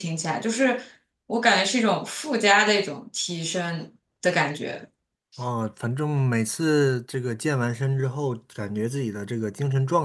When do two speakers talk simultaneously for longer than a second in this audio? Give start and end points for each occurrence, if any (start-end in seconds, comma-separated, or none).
none